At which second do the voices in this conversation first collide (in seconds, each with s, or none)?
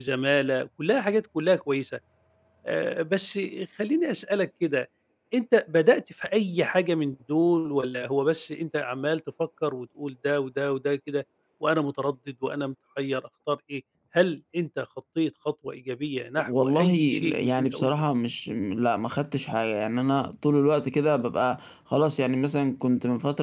16.4 s